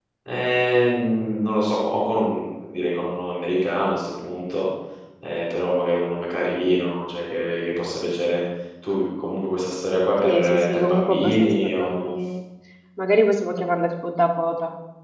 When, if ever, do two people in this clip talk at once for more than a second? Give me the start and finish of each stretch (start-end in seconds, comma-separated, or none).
10.2-12.1